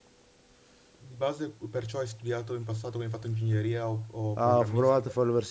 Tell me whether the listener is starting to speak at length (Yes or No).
Yes